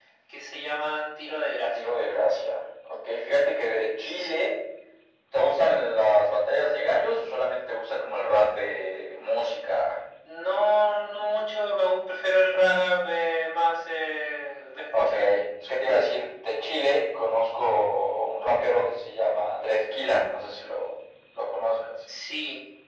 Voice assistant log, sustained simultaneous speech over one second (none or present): none